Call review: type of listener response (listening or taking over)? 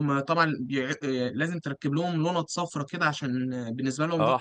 taking over